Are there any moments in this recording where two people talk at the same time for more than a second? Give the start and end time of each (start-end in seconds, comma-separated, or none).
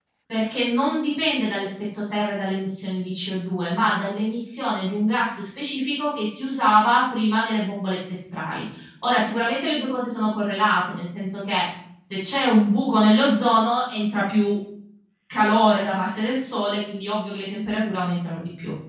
none